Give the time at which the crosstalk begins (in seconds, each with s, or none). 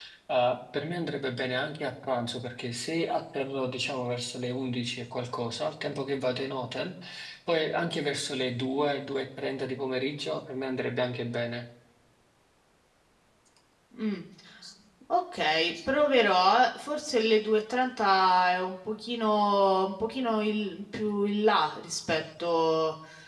none